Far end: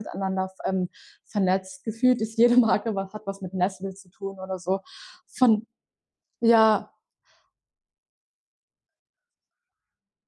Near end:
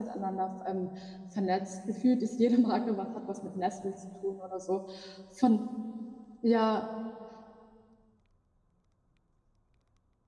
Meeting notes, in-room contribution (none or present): none